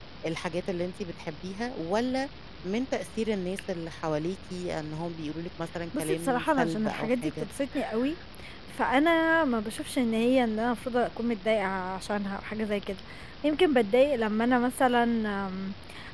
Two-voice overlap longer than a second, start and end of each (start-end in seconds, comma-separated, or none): 6.0-7.5